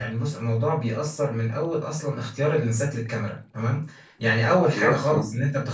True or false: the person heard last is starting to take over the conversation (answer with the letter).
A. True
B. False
B